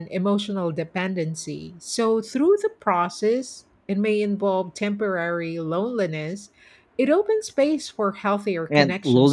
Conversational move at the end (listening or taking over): taking over